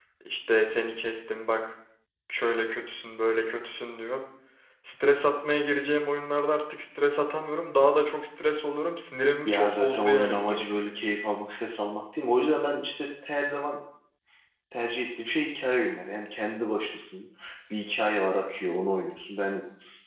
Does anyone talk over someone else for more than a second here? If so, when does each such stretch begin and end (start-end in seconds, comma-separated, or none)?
9.4-10.7